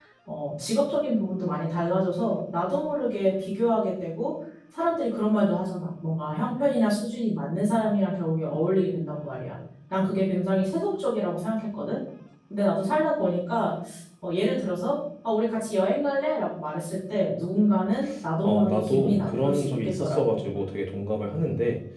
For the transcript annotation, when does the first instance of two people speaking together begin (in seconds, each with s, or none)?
18.4 s